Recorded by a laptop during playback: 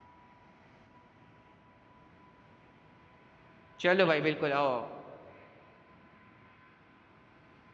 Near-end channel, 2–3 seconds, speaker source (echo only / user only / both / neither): neither